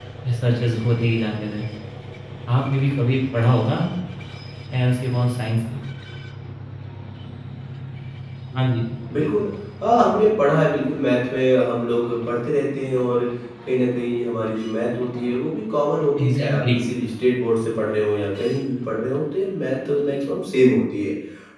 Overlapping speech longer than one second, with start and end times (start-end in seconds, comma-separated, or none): none